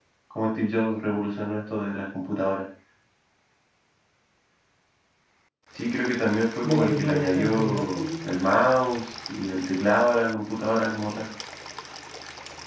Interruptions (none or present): present